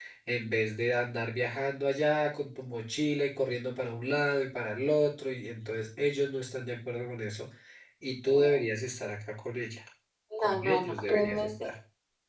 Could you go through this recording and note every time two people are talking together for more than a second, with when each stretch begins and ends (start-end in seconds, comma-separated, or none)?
10.4-11.7